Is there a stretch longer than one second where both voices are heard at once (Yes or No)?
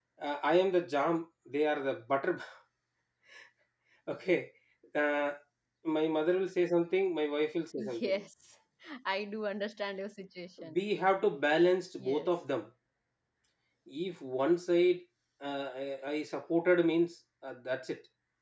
No